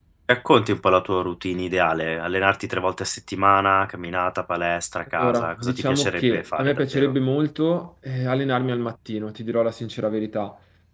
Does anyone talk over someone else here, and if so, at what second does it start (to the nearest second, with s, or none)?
5 s